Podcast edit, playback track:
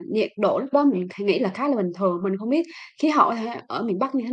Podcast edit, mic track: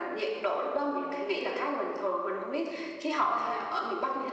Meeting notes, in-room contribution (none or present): none